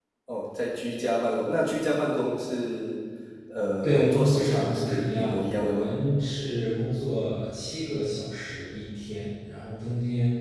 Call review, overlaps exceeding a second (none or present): present